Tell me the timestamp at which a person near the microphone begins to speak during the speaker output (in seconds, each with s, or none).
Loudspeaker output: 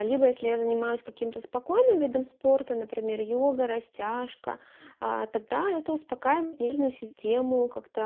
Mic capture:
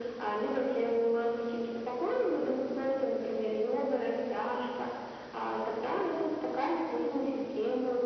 none